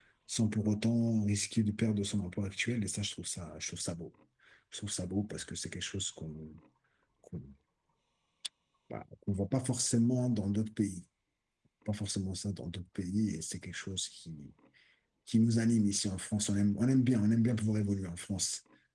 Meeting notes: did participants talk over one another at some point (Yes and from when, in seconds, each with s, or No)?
No